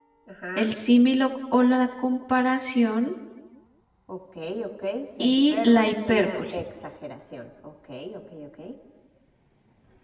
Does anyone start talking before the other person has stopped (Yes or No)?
Yes